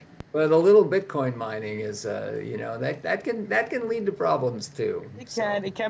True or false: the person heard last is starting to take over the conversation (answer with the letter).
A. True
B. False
A